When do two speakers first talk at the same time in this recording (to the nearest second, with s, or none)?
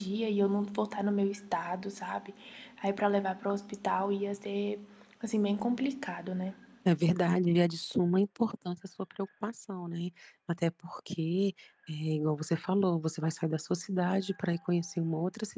none